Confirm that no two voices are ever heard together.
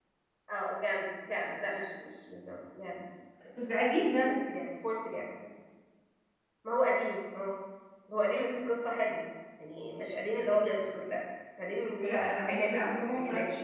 No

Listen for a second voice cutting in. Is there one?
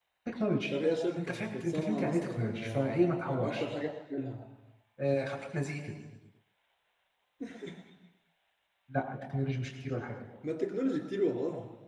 Yes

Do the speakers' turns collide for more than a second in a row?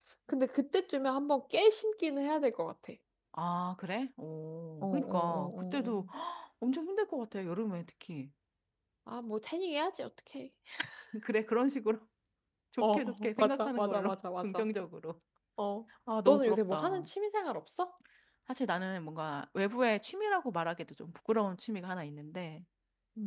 Yes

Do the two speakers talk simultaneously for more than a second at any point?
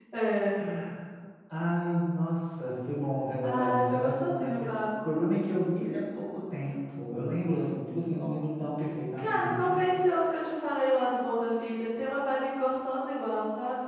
Yes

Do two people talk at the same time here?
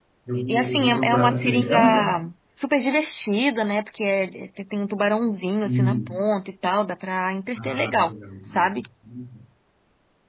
Yes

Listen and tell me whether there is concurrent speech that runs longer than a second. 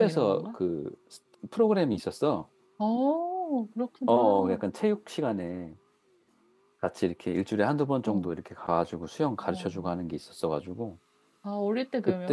No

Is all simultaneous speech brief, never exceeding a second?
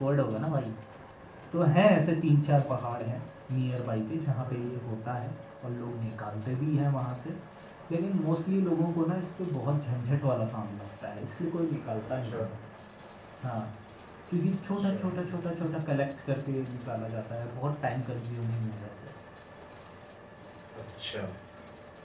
Yes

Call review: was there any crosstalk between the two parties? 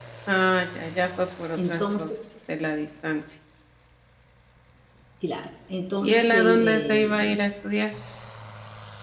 Yes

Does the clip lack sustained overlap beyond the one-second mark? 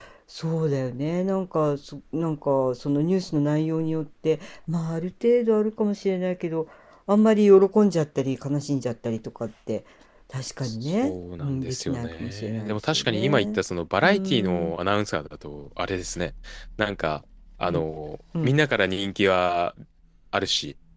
No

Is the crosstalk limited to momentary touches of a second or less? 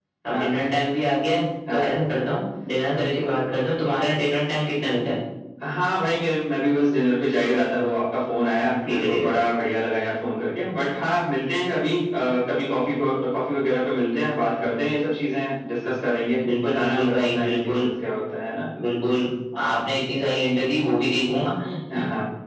No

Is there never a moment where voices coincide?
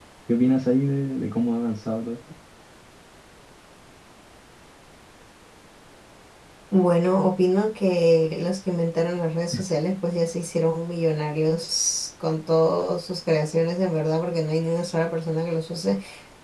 Yes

